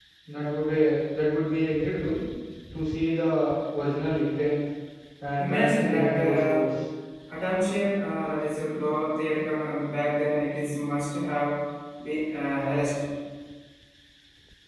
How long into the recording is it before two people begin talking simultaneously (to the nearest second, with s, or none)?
5 s